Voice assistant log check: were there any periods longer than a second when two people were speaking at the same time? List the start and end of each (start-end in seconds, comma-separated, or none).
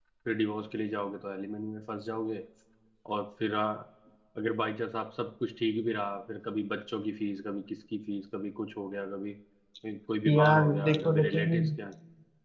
10.2-11.7